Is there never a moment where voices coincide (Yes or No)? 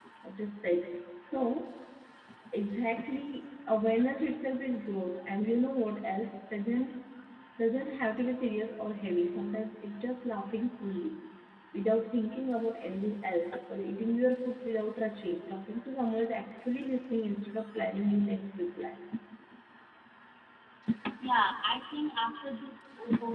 Yes